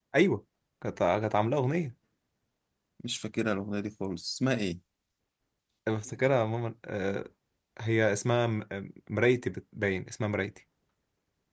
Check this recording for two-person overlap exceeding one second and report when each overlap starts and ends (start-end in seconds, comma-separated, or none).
none